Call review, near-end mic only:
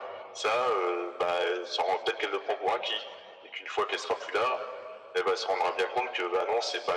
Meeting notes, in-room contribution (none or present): none